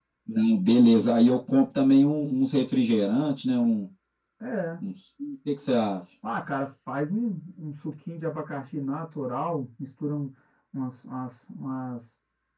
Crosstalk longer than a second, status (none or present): none